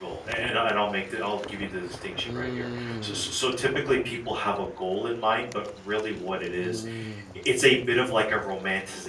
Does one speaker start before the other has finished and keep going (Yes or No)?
Yes